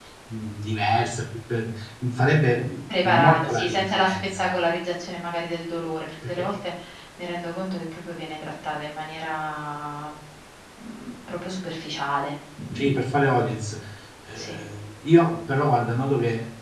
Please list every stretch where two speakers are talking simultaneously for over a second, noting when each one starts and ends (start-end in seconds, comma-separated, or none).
3.0-4.5